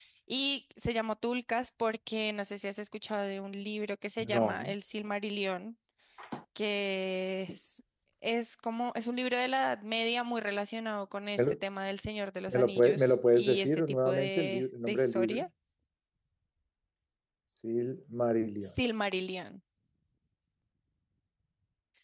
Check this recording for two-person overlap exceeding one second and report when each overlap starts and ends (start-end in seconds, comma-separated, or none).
12.5-15.4